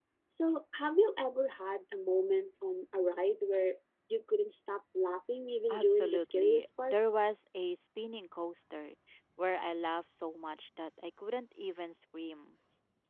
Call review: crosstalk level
present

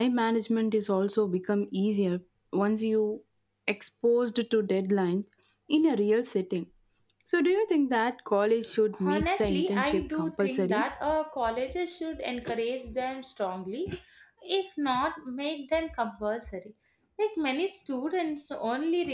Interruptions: present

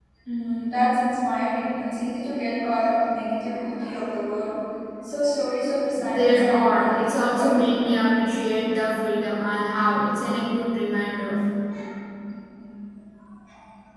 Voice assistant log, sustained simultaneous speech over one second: present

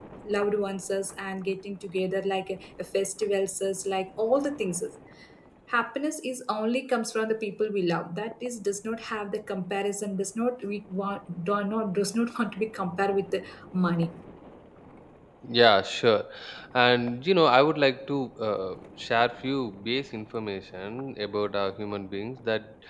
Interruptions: none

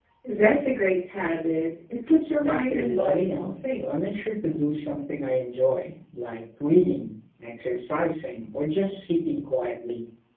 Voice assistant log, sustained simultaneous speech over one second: present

